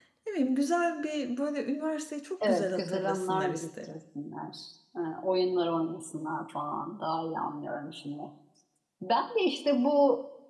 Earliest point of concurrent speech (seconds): 2.4 s

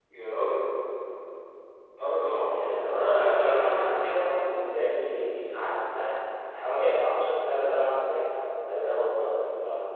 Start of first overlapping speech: 2.5 s

